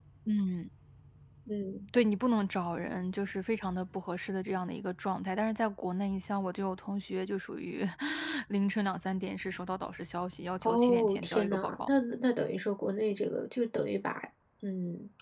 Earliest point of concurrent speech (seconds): 11 s

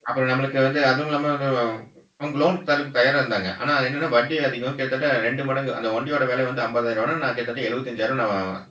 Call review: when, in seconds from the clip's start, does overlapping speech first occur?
none

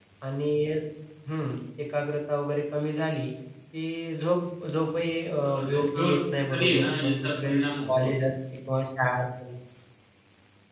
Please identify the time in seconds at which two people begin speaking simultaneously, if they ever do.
5 s

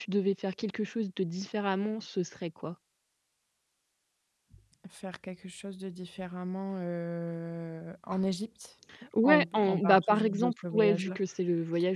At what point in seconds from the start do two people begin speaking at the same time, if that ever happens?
9 s

